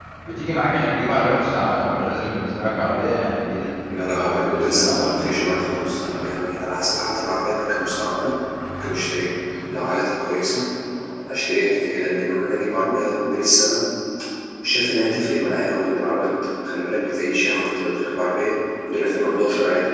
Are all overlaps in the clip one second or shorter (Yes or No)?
No